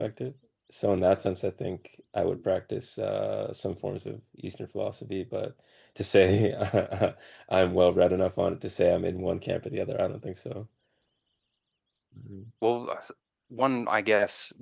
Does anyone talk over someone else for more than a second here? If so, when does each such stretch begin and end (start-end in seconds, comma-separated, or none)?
none